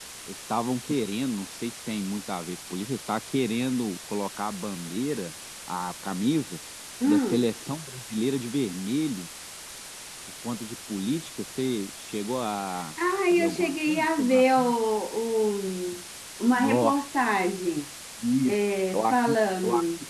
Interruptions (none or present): present